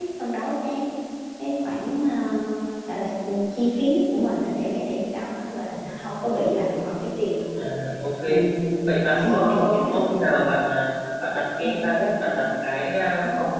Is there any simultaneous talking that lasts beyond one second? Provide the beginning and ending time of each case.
8.9-10.1

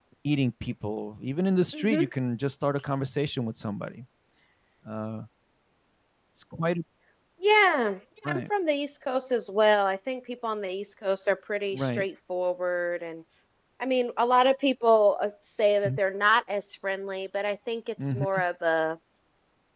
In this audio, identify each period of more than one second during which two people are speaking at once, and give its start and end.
none

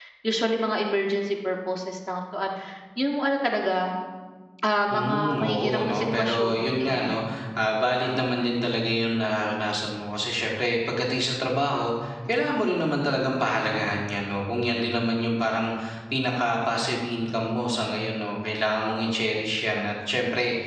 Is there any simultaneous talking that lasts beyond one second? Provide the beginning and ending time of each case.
4.9-7.2

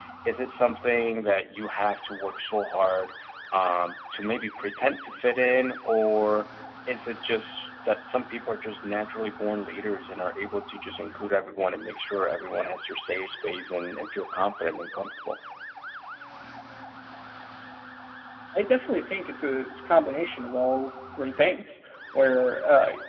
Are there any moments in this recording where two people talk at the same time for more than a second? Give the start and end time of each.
none

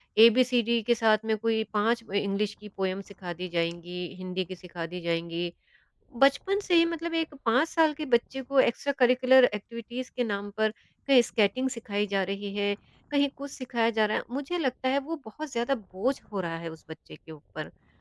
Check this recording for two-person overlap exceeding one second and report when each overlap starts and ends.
none

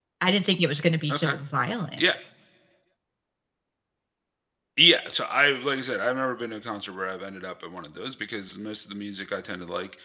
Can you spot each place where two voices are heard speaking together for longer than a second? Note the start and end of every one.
none

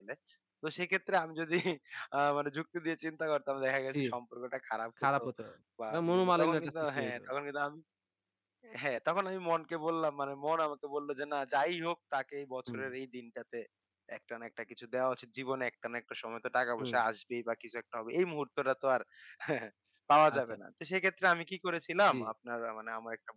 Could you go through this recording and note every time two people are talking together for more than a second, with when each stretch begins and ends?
5.9-7.2

